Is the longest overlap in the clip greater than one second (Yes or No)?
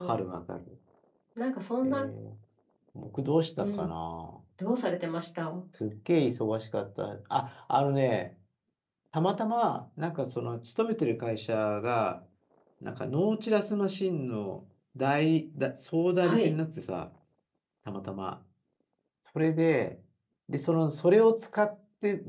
No